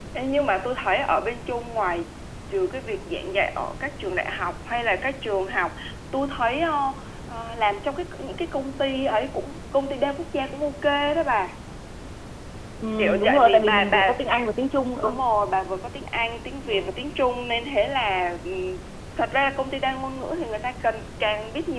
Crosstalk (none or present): present